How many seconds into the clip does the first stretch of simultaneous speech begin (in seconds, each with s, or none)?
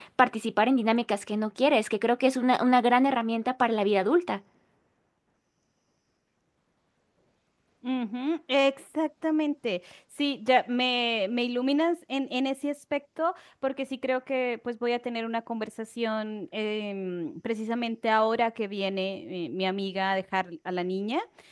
none